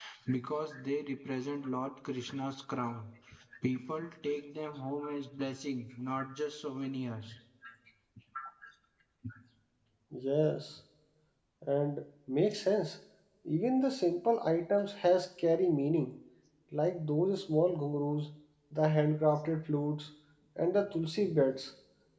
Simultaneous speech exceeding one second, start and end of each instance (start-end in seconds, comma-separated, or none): none